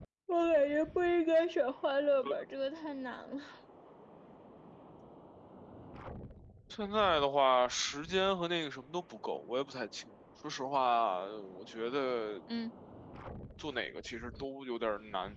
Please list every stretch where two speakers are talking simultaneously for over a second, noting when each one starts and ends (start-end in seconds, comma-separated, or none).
none